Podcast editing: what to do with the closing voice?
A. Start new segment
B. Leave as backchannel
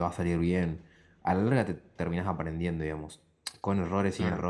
B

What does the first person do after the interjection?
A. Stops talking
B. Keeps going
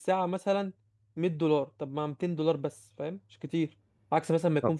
B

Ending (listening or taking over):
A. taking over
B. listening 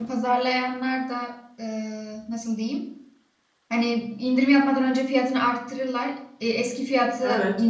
B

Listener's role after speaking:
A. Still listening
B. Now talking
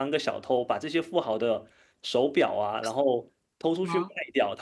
A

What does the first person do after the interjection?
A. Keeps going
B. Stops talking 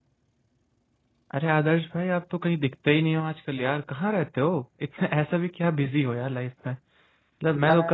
A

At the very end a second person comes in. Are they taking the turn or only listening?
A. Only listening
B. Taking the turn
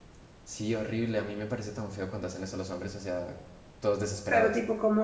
B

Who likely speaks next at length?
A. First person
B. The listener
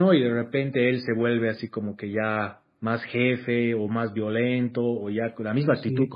A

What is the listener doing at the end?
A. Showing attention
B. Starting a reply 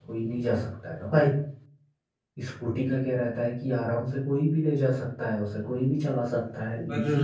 B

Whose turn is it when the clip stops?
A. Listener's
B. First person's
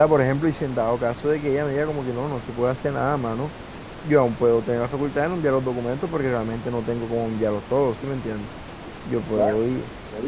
A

